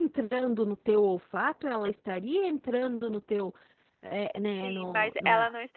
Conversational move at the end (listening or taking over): taking over